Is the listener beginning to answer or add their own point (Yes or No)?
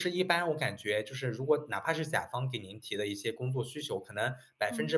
No